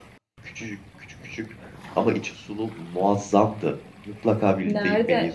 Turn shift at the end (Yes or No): Yes